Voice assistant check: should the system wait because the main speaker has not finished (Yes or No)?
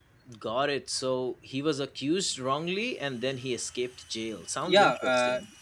No